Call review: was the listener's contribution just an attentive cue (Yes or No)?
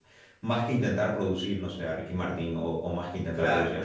Yes